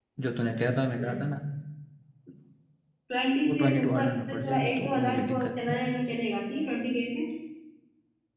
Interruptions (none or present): present